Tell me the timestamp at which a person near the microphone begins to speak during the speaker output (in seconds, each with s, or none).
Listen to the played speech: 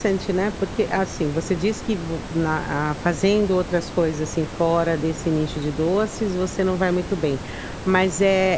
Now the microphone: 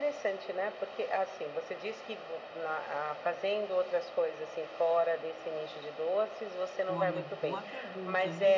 6.9 s